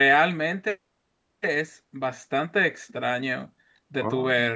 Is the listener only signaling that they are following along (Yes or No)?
Yes